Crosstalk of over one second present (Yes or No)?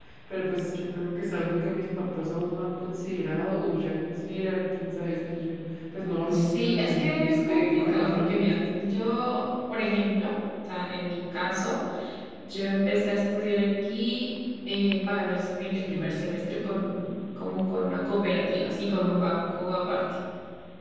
Yes